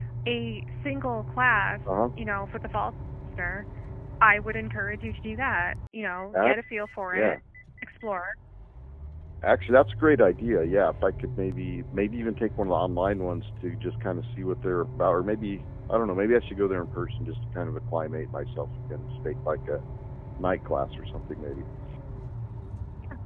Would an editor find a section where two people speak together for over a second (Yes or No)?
No